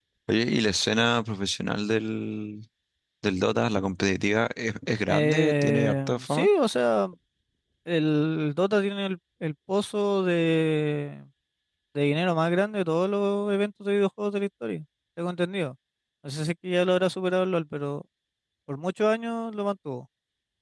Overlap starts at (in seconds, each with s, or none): 5.1 s